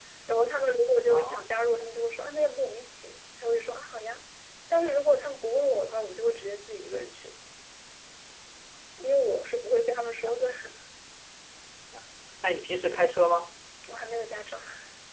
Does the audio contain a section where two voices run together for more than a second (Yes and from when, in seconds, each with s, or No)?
No